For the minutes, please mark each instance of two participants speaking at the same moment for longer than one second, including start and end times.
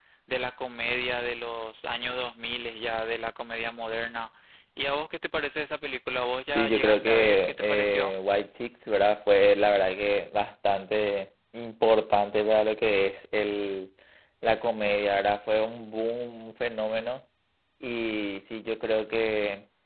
6.5-8.1

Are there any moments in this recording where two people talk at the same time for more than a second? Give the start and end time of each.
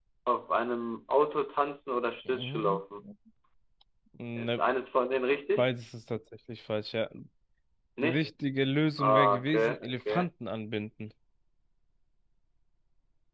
9.0-10.3

